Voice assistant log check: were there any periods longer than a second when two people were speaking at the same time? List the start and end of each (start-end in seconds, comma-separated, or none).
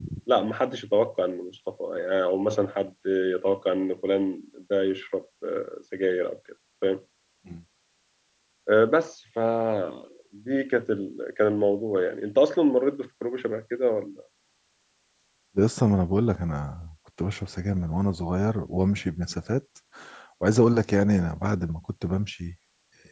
none